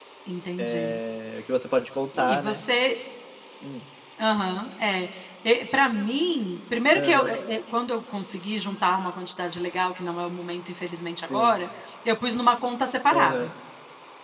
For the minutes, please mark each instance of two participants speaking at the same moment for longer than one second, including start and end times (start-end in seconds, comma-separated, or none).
none